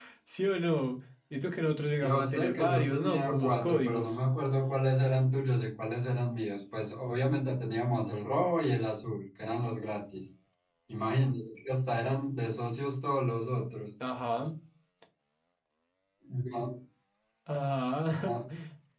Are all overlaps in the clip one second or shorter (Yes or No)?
No